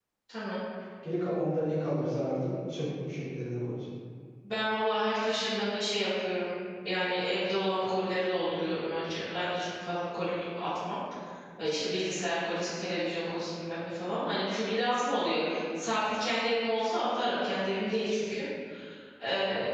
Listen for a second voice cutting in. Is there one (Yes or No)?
No